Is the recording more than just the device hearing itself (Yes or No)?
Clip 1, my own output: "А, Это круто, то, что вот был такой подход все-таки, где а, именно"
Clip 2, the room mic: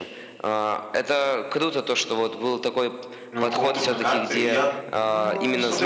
Yes